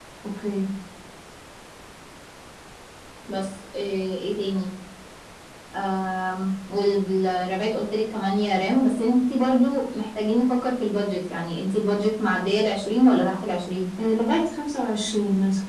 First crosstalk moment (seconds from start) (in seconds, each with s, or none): none